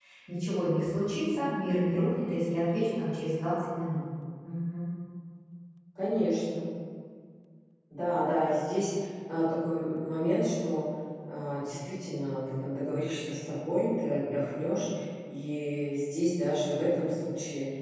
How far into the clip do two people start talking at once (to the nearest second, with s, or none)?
none